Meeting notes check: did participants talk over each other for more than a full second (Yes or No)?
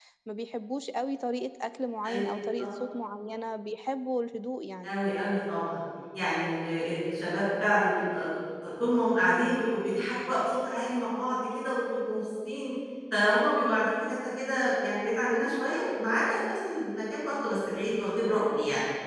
No